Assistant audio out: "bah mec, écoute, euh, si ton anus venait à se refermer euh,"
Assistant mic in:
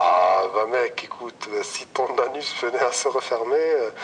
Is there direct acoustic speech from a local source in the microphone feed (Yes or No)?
No